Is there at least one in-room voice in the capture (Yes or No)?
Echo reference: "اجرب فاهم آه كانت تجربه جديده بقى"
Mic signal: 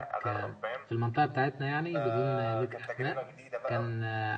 Yes